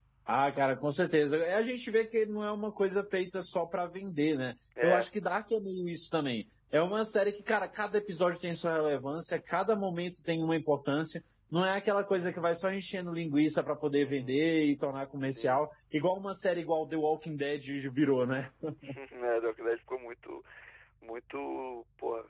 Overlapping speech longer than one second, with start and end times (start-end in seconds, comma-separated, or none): none